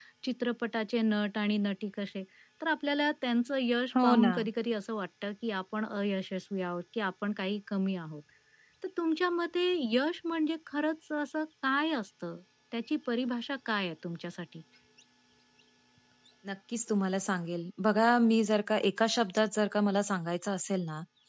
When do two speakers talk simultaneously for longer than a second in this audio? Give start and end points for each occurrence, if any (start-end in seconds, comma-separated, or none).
none